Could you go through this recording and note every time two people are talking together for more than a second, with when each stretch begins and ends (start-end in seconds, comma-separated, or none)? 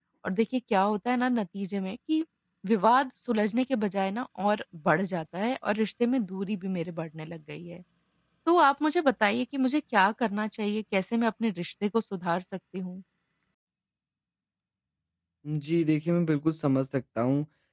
none